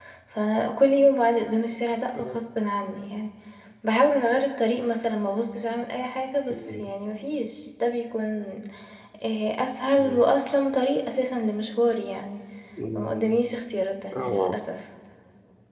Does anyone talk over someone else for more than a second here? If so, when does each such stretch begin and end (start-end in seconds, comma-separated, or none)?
none